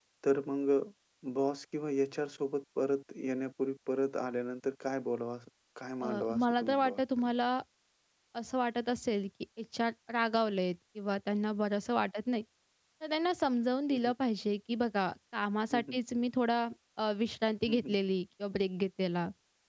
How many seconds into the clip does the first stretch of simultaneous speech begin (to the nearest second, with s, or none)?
6 s